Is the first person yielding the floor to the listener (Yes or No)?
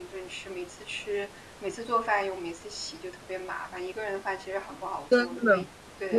Yes